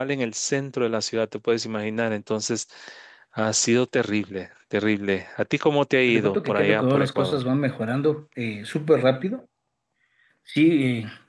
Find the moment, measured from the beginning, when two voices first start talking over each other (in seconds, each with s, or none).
6.1 s